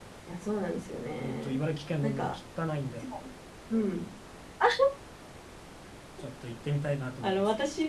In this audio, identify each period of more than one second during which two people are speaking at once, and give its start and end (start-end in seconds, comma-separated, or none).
none